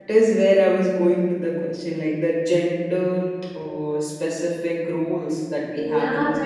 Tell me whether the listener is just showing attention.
No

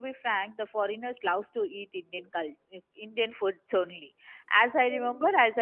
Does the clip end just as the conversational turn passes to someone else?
No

